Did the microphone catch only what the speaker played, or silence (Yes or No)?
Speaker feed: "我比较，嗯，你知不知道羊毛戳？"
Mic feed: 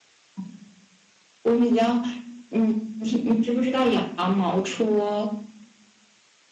Yes